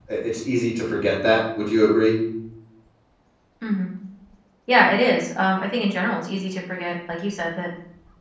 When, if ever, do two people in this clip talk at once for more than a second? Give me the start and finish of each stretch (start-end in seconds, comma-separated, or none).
none